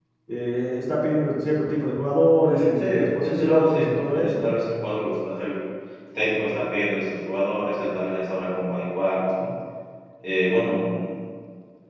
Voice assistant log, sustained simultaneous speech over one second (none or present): present